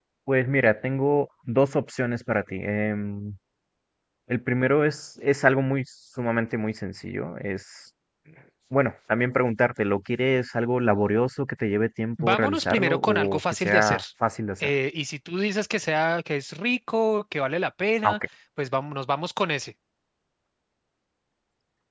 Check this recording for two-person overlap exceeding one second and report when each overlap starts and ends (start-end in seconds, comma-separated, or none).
12.2-14.0